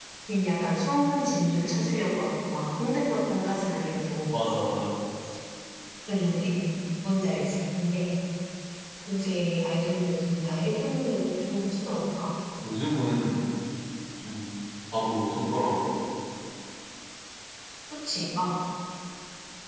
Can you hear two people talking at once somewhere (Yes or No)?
No